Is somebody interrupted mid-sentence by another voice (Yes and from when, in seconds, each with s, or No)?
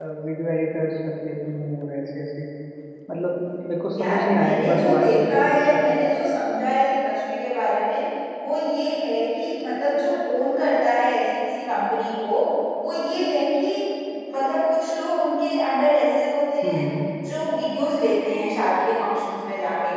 Yes, from 4.0 s